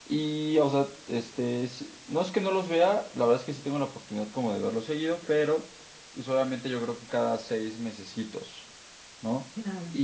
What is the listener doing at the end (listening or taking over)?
listening